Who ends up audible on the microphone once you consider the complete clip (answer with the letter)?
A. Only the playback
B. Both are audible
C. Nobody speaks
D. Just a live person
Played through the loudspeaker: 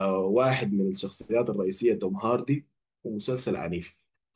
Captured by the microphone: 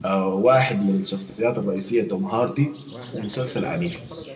B